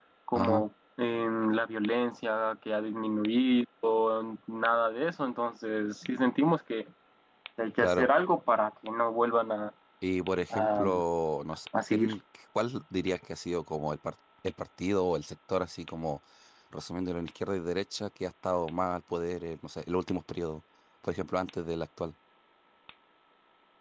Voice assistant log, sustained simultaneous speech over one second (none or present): none